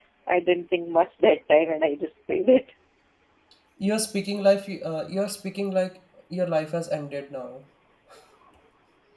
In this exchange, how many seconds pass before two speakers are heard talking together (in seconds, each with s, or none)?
none